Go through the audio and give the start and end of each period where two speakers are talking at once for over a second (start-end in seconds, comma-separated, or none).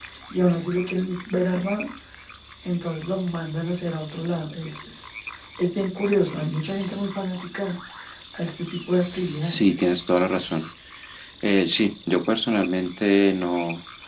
none